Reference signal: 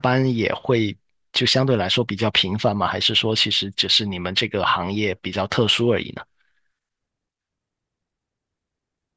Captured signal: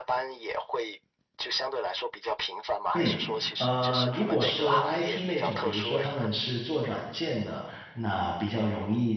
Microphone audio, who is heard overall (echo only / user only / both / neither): both